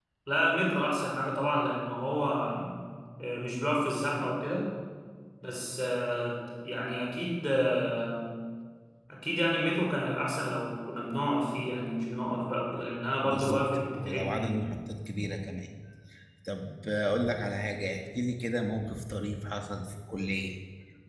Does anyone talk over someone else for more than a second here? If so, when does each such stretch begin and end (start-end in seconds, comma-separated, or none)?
13.2-14.5